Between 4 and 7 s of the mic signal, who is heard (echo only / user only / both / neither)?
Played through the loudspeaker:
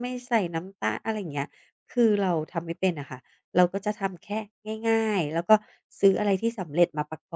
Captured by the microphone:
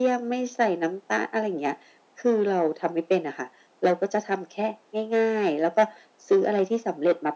echo only